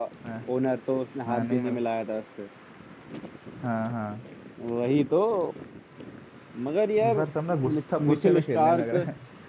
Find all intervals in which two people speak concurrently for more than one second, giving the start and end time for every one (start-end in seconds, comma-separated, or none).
7.1-8.9